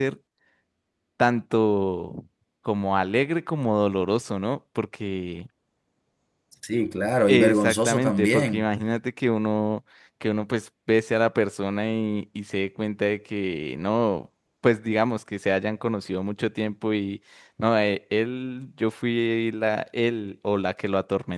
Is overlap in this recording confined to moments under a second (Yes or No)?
No